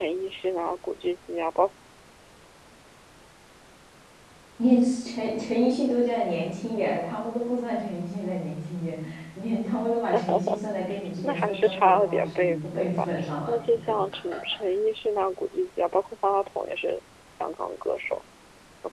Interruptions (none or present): present